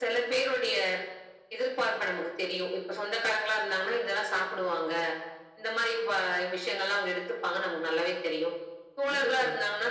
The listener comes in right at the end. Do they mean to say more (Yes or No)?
No